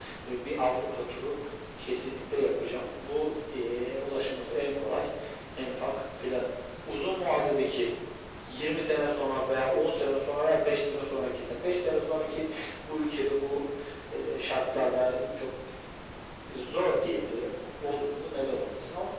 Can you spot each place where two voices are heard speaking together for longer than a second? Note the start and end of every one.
none

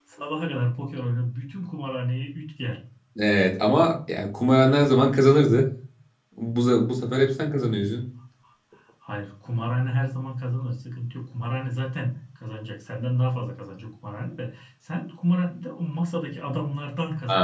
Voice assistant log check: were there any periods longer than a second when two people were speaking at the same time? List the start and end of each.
none

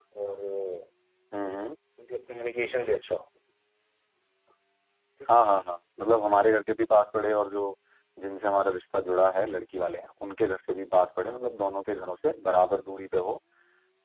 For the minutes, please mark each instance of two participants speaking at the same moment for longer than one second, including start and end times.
none

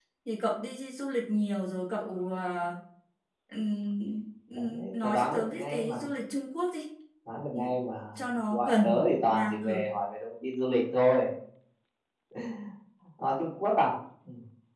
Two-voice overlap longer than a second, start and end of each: 4.7-6.0, 8.5-9.8

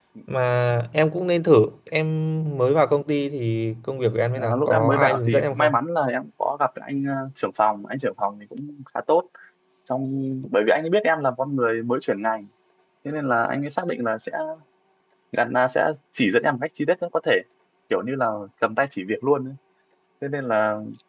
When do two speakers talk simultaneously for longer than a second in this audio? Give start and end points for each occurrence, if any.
4.4-5.7

